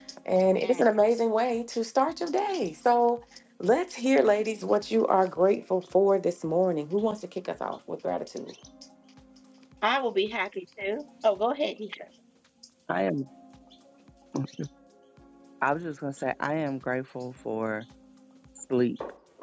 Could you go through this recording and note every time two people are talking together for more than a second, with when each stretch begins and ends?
none

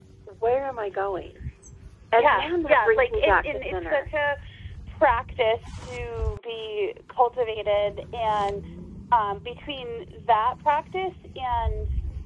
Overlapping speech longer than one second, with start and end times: 2.1-4.1

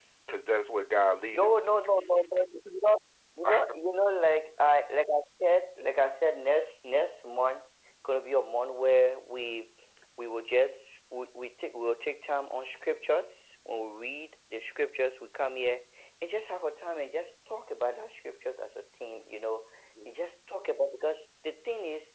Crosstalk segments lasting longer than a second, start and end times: none

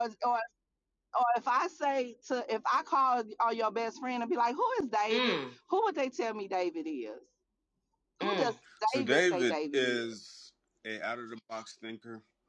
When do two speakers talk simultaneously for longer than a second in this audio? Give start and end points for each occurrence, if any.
8.9-10.1

